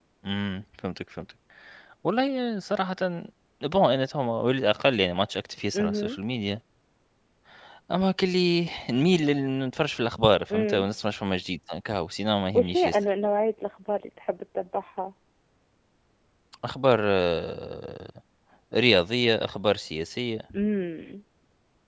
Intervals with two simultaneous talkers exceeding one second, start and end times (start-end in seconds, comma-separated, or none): none